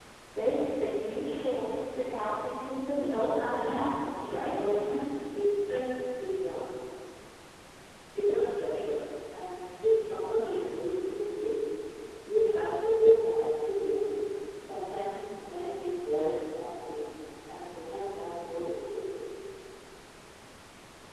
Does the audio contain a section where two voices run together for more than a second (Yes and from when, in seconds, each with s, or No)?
Yes, from 3.0 s